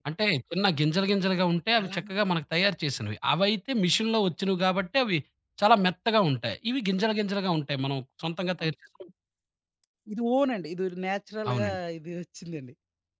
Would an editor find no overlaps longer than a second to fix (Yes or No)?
Yes